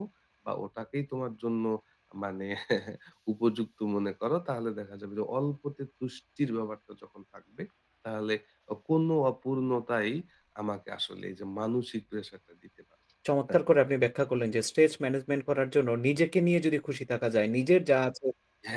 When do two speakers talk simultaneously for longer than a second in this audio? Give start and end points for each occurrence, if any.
none

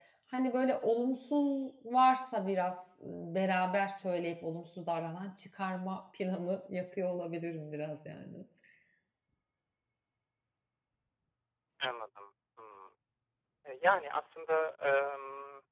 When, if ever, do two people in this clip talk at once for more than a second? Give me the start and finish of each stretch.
none

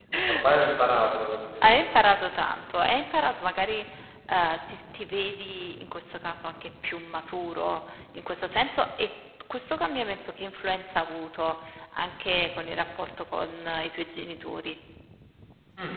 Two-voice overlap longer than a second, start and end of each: none

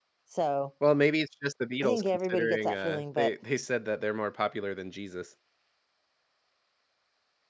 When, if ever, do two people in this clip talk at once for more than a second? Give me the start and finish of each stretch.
1.8-3.3

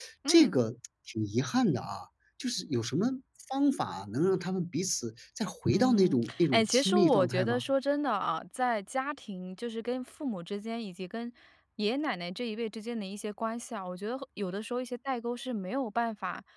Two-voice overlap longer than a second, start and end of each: 5.7-7.6

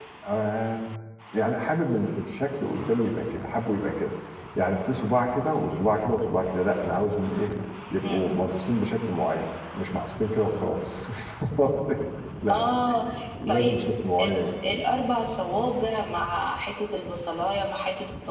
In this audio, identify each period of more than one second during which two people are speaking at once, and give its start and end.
none

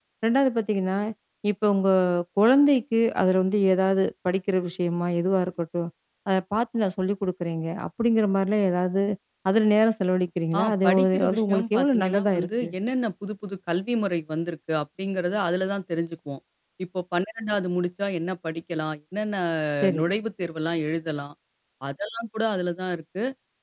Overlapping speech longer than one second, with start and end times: 10.5-12.7

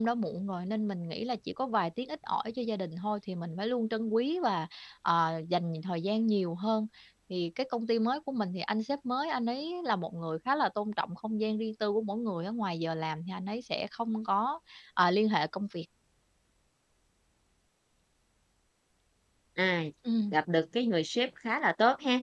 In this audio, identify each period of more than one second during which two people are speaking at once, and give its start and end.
none

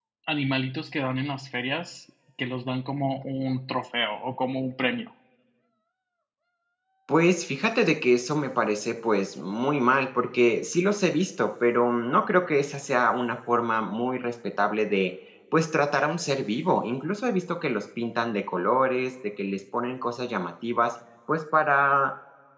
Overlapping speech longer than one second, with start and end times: none

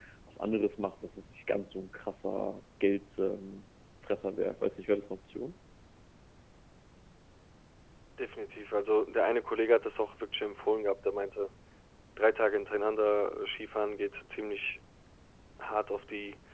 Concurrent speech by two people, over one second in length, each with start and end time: none

